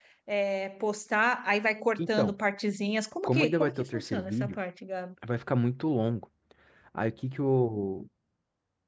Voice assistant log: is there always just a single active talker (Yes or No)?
No